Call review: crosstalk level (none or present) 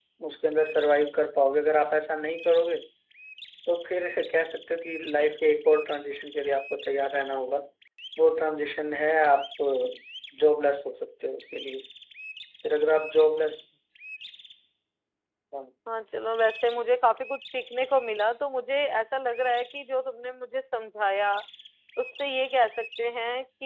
none